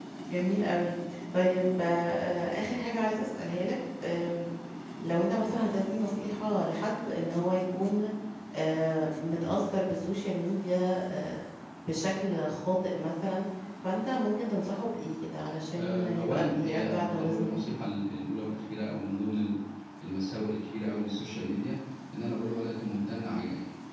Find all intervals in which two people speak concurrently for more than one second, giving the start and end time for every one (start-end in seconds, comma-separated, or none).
15.7-17.7